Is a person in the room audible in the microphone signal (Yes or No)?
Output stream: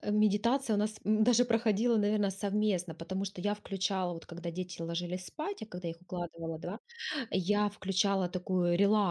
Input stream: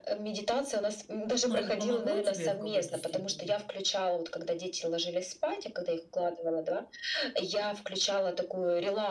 Yes